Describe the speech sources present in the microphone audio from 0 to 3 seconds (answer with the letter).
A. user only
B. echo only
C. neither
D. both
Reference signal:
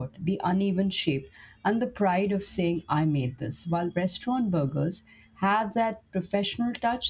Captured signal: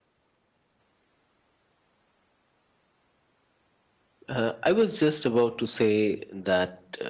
C